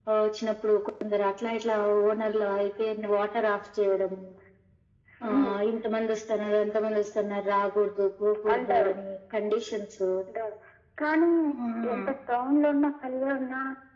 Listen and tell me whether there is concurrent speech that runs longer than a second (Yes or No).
No